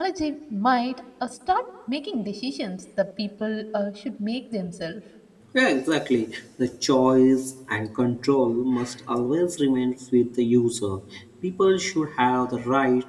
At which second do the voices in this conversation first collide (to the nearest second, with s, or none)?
none